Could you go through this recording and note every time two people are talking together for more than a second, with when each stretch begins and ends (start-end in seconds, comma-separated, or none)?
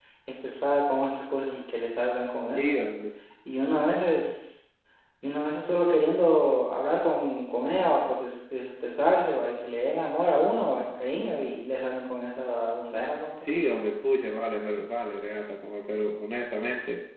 none